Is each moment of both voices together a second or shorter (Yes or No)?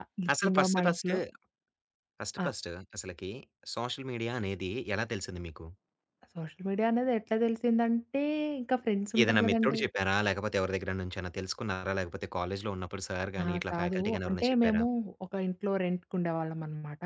No